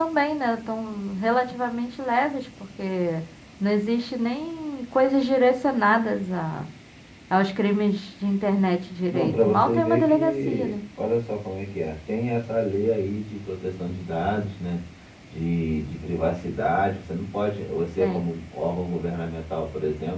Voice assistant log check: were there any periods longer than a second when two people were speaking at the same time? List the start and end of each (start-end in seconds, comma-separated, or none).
9.1-10.7